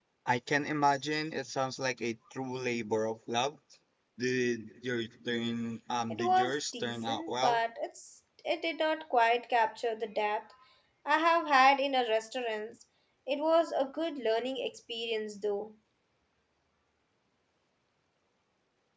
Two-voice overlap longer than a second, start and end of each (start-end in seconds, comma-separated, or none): 6.1-7.6